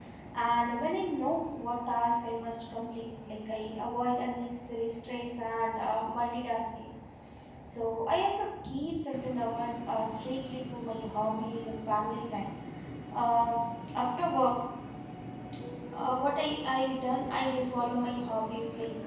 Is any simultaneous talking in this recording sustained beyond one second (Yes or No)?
No